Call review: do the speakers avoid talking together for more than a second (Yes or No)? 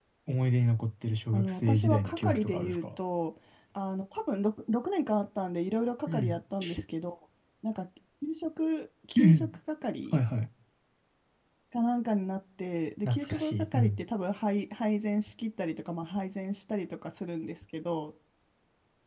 No